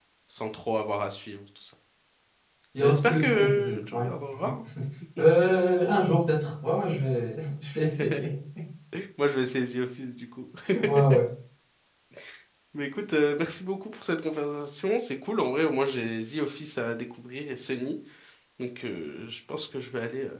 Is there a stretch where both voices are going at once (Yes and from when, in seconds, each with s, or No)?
Yes, from 2.8 s